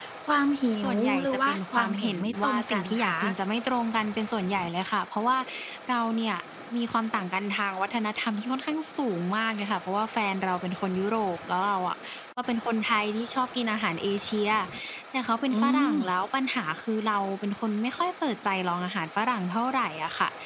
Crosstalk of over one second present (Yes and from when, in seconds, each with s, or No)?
Yes, from 0.8 s